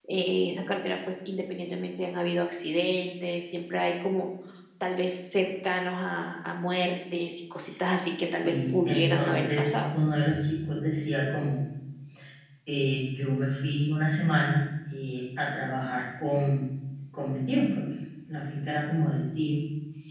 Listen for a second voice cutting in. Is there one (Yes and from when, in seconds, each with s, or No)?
Yes, from 8.4 s